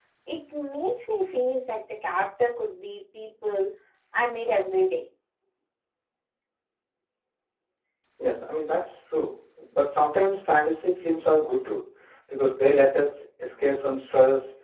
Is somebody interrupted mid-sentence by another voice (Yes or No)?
No